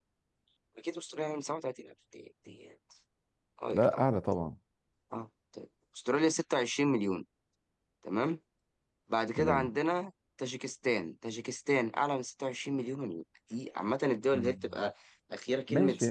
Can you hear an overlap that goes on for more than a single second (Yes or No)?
No